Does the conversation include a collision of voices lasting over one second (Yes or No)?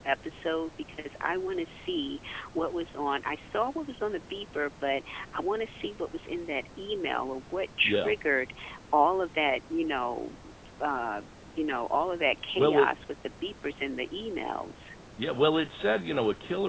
No